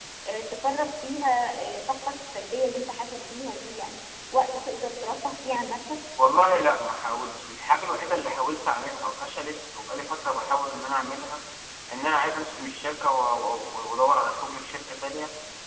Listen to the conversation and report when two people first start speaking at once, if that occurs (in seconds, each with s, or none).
none